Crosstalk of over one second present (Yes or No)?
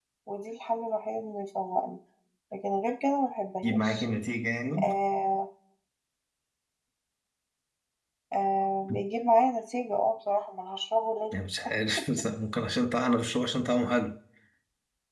No